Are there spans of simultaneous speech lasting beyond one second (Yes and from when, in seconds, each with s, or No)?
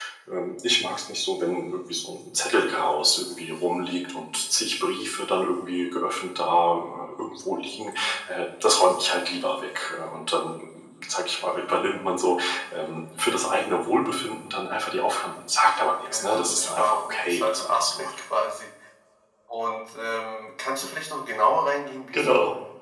Yes, from 16.0 s